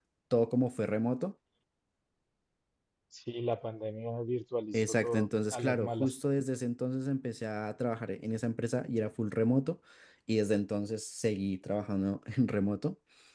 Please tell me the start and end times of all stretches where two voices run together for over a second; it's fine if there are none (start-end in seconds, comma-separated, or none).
4.7-6.1